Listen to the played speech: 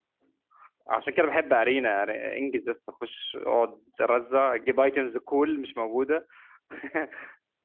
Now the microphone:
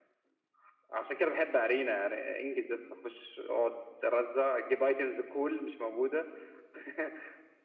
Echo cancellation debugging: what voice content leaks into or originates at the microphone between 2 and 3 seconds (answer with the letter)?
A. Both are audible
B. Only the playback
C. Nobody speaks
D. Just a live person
B